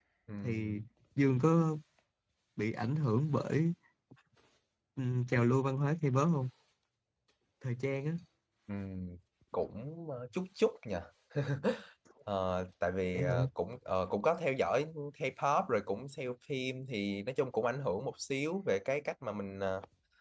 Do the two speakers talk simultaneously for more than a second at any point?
No

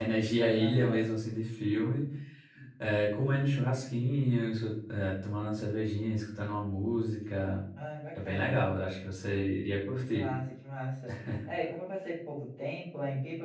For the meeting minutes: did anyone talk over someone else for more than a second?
No

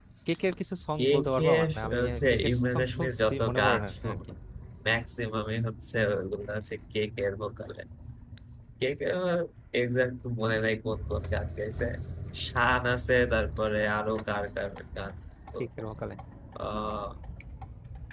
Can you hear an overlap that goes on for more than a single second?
Yes, from 1.0 s

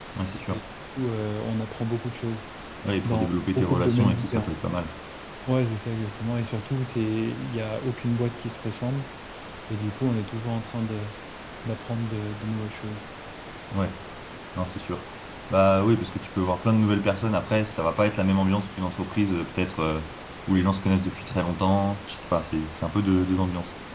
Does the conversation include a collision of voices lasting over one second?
Yes, from 3.0 s

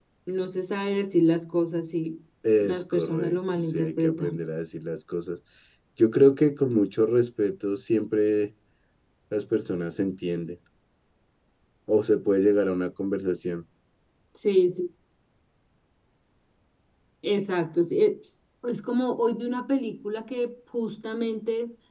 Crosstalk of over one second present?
Yes, from 2.4 s

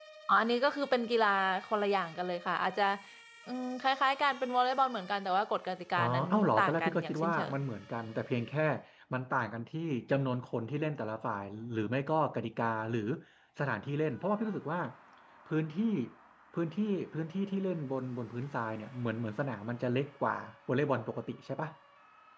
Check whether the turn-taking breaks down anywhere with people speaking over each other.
Yes, from 6.0 s

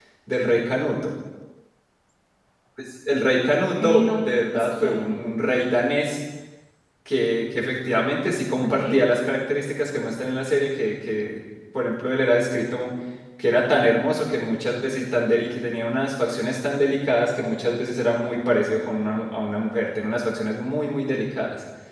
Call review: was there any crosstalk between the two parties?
Yes, from 3.8 s

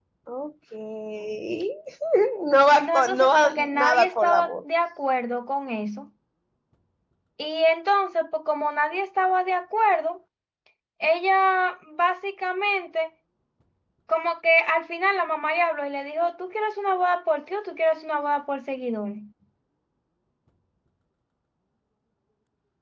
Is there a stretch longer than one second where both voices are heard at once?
Yes, from 2.8 s

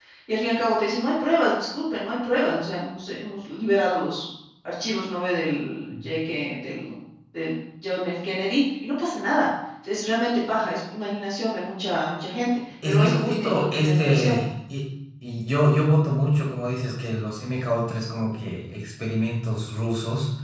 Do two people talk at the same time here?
Yes, from 12.8 s

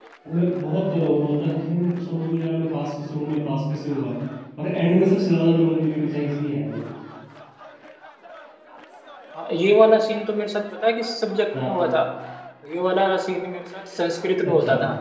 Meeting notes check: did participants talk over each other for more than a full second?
No

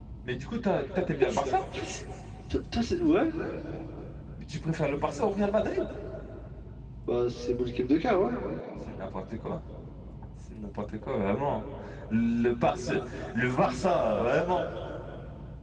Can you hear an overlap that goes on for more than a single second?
No

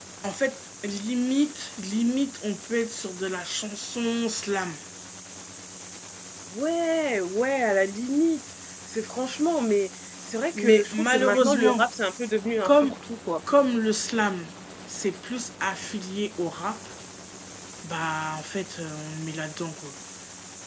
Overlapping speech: Yes, from 10.6 s

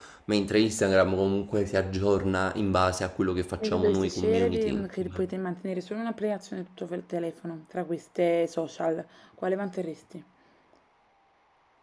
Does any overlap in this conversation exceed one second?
Yes, from 3.6 s

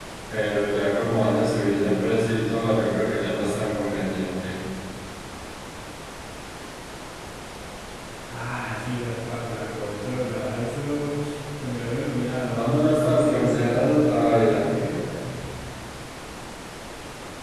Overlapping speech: Yes, from 13.0 s

